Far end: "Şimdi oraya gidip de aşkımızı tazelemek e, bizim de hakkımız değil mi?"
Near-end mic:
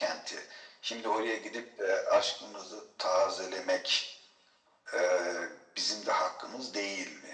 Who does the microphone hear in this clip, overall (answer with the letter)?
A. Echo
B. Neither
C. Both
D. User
A